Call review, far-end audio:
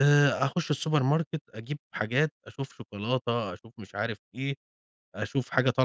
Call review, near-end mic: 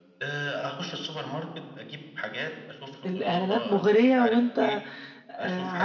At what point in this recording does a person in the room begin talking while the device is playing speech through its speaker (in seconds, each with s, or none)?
3.1 s